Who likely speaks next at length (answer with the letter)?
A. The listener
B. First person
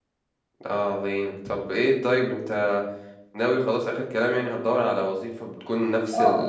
A